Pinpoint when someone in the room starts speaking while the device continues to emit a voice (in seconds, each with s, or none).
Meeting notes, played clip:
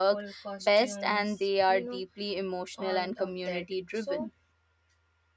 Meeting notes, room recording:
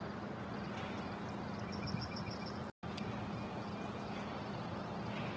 none